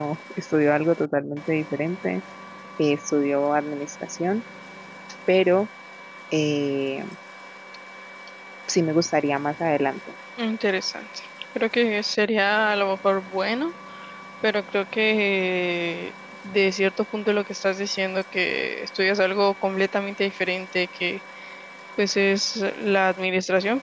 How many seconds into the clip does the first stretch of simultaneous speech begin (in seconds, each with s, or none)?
none